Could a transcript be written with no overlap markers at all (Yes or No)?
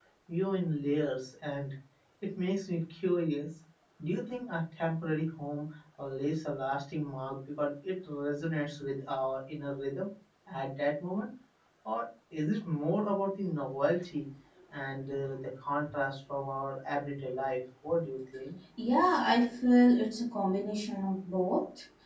Yes